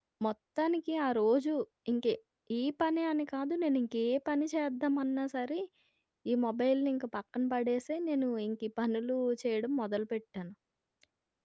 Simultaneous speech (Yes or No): No